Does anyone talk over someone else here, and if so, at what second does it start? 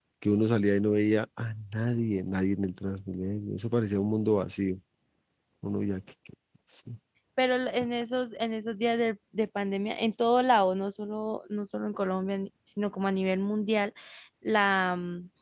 none

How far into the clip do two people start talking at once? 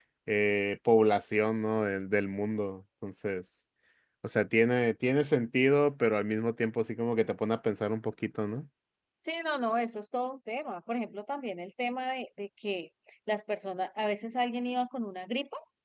none

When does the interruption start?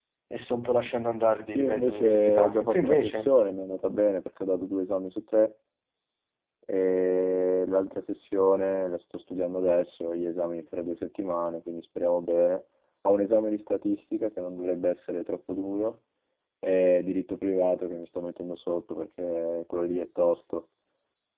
1.6 s

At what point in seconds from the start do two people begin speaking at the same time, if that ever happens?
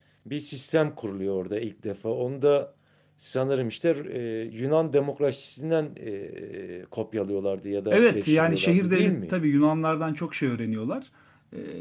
7.9 s

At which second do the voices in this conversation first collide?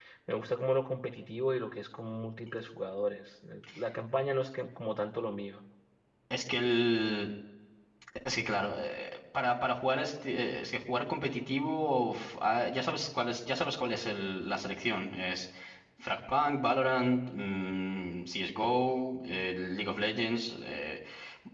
none

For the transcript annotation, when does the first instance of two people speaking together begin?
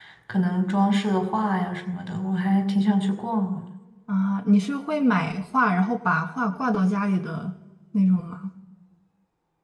none

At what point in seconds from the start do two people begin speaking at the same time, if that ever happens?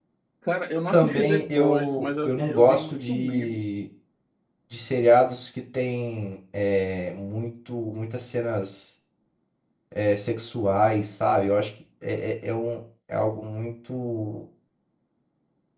0.9 s

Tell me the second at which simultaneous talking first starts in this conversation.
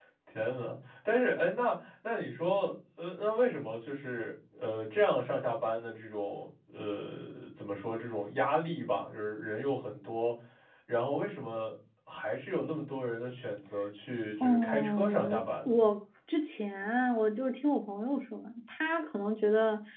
14.4 s

